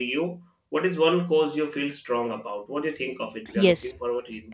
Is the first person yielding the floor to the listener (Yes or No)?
Yes